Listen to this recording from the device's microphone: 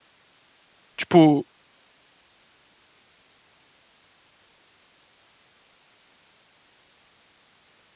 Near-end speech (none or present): present